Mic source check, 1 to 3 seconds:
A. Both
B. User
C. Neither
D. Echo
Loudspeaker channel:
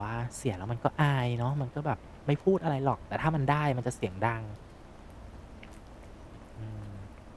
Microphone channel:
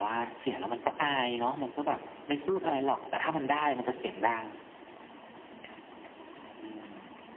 D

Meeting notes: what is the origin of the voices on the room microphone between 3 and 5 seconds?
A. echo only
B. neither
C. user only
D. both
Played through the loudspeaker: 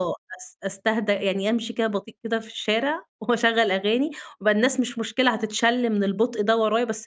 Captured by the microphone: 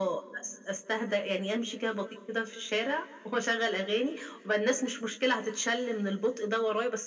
A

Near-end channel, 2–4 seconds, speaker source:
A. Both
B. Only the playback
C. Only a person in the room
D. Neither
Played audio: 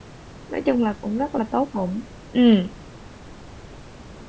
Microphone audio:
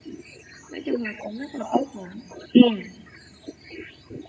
B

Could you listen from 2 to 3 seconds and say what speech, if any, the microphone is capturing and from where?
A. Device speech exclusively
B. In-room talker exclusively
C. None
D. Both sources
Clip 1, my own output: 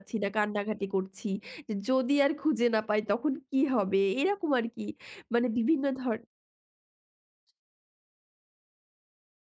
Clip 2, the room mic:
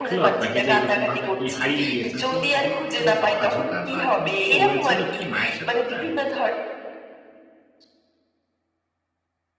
D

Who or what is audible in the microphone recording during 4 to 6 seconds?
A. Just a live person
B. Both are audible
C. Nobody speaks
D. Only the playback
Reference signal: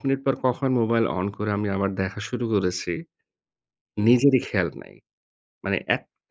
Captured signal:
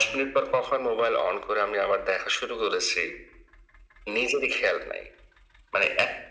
D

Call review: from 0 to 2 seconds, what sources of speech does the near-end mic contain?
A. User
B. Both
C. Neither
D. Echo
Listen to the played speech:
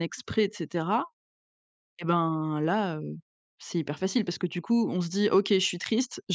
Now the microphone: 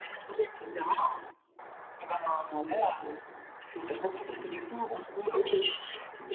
D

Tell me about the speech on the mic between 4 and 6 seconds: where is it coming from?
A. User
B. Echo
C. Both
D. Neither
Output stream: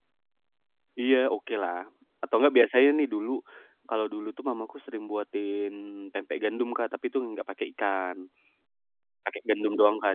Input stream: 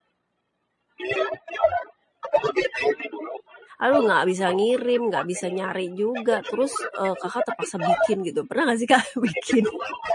C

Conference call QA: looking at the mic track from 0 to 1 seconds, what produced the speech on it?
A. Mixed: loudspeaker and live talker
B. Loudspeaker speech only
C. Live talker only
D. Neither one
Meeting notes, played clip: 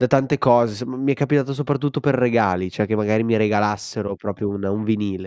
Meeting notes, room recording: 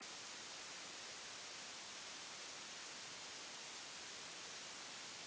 D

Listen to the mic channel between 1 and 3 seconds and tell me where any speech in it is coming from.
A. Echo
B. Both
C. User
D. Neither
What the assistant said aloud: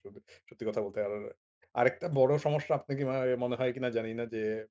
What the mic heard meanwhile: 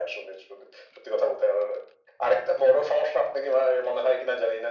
A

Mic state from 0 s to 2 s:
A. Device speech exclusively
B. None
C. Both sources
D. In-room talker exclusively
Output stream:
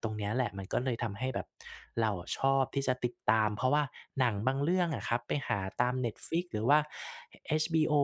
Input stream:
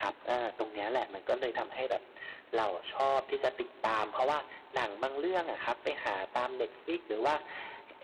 A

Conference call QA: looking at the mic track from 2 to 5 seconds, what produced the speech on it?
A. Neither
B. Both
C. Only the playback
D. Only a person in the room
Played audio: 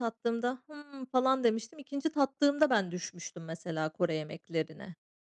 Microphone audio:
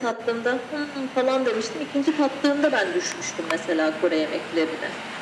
C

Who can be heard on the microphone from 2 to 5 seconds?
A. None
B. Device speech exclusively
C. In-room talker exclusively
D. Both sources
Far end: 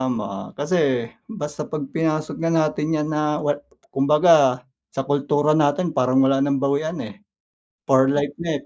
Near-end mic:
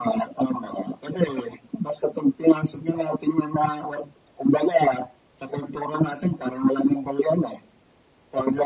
B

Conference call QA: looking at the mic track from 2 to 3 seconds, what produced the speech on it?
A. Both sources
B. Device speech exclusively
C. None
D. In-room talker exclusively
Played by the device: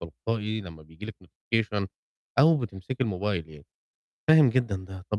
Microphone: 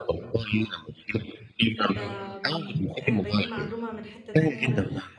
A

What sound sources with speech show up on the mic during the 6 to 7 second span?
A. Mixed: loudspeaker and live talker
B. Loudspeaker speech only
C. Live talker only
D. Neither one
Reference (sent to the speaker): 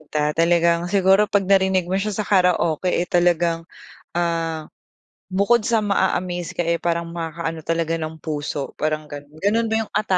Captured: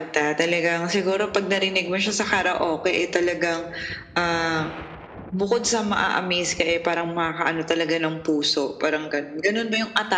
B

